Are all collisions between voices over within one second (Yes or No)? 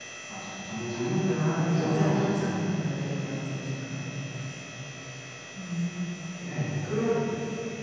No